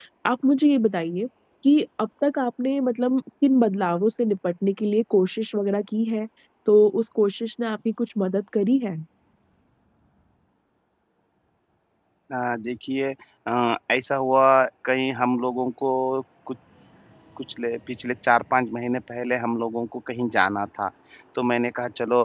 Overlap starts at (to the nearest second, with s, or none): none